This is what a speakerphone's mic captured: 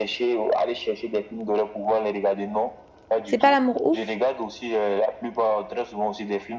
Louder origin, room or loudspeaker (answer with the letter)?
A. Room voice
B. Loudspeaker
A